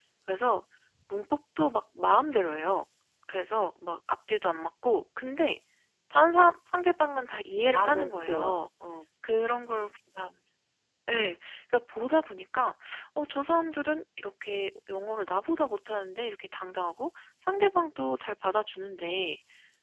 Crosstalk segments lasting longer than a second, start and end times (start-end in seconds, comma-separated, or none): 7.3-8.6